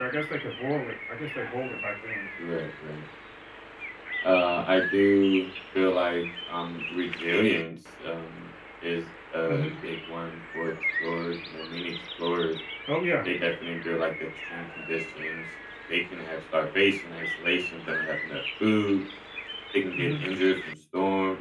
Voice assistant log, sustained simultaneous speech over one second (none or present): none